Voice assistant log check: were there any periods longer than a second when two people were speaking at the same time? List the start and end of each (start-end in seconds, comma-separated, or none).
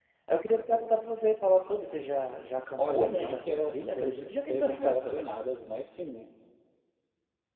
2.8-5.3